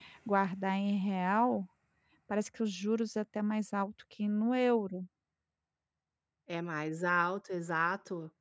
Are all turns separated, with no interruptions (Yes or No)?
Yes